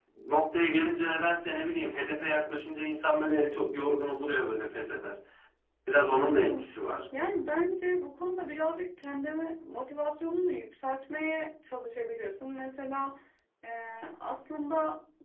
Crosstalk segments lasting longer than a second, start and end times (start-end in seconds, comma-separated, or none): none